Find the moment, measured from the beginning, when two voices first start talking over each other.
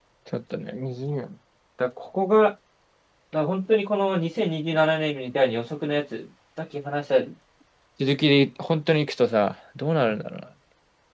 none

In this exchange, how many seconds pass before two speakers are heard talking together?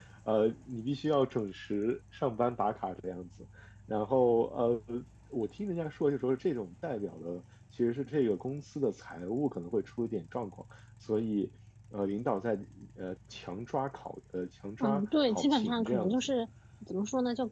14.8 s

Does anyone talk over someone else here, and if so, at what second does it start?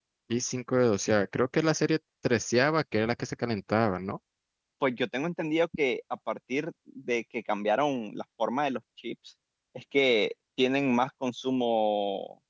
none

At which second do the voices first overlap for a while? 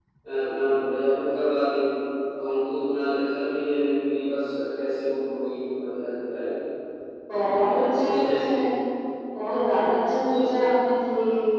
7.3 s

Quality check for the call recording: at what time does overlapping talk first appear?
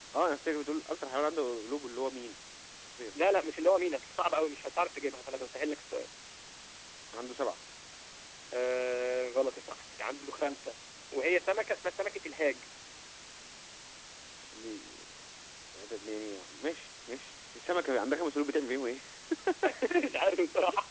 none

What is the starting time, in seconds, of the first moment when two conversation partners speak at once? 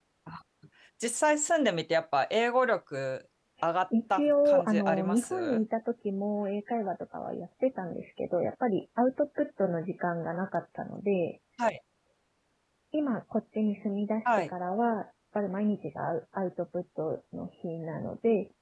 4.1 s

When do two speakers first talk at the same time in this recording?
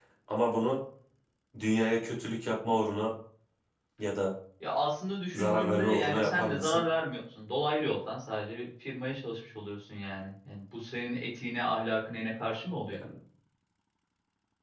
5.3 s

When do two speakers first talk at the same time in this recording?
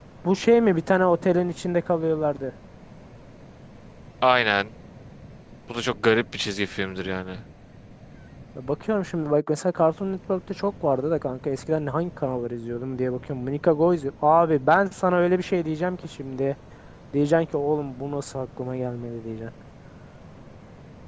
none

